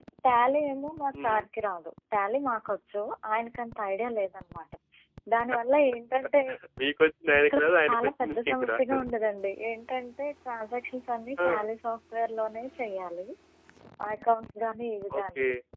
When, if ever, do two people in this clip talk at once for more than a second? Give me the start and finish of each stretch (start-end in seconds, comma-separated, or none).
7.4-9.0